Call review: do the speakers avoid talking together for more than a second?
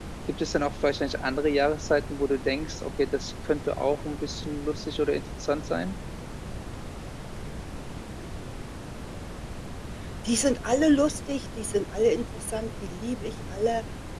Yes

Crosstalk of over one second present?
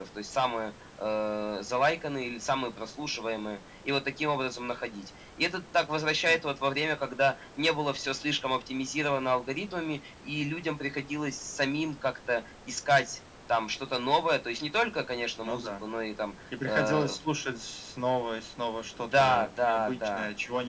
Yes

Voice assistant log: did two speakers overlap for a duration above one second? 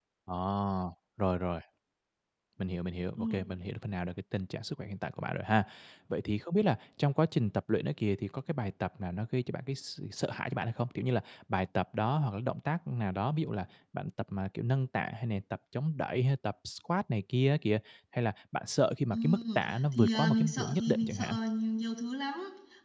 Yes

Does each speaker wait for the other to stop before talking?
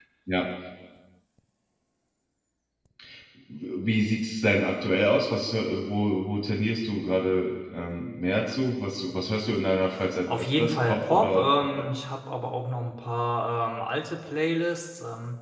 No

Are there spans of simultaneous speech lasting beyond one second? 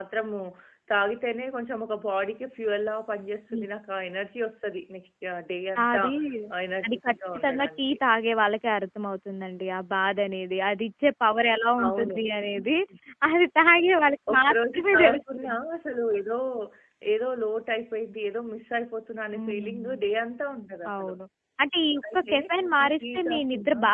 Yes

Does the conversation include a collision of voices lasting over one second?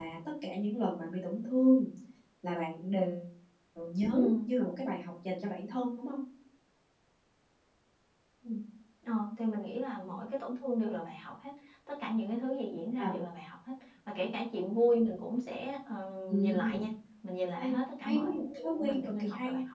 Yes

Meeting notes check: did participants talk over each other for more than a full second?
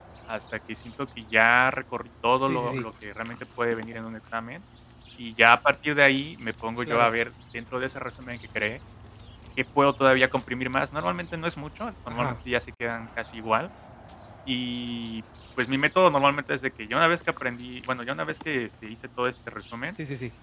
No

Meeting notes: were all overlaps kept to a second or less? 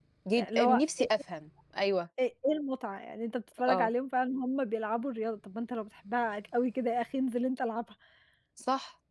Yes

